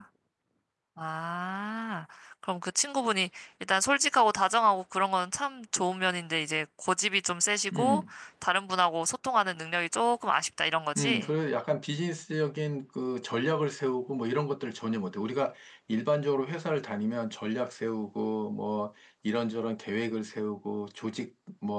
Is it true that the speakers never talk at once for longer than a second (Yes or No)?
Yes